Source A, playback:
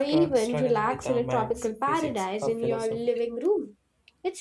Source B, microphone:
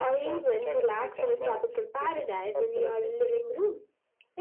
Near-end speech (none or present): none